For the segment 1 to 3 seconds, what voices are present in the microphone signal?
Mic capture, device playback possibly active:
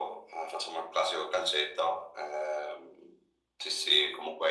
echo only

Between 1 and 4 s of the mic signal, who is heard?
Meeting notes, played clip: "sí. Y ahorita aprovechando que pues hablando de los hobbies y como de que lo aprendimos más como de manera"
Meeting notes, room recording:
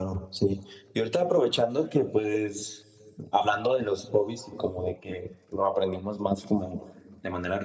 echo only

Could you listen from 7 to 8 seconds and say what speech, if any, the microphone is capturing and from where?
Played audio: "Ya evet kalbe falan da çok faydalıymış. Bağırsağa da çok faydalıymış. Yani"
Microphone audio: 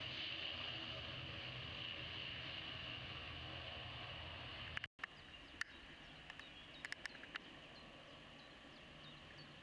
neither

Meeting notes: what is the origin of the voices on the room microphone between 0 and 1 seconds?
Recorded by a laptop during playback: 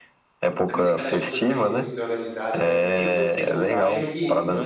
both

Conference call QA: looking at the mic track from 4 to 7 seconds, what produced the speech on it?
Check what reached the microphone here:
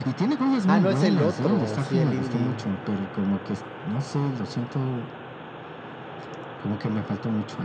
echo only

